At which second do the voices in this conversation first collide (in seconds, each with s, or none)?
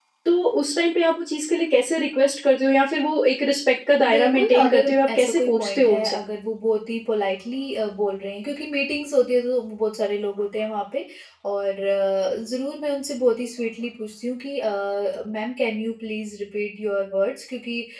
4.0 s